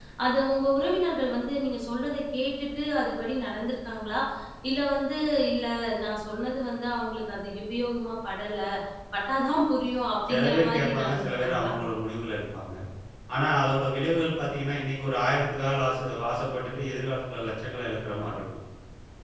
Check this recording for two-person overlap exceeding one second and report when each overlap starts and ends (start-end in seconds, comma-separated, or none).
10.3-11.7